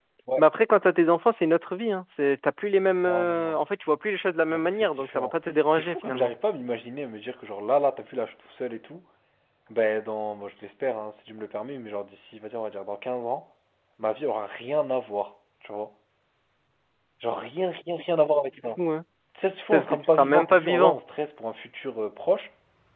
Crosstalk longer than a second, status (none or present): present